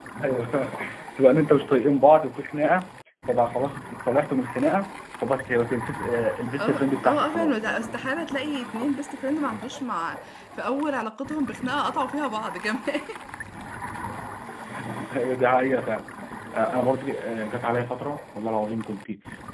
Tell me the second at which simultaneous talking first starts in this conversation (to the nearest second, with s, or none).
7 s